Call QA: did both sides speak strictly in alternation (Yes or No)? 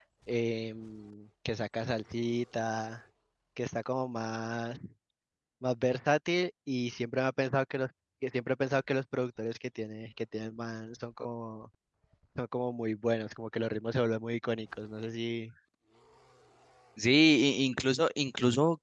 Yes